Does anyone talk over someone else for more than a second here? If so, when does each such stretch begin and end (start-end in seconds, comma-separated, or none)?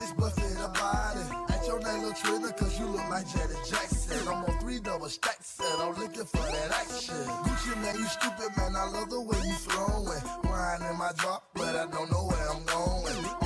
none